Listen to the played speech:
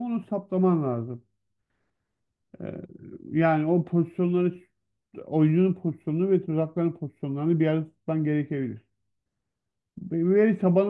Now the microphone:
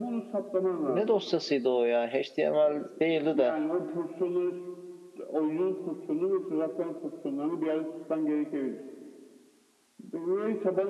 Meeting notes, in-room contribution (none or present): present